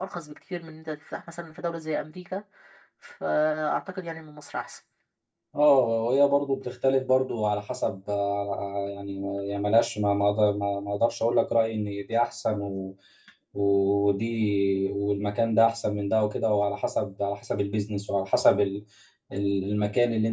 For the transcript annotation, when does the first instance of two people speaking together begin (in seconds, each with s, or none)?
none